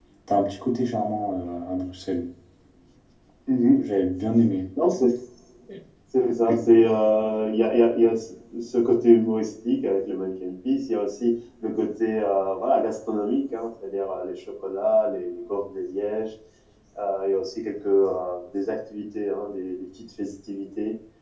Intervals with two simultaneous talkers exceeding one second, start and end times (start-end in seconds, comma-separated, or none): none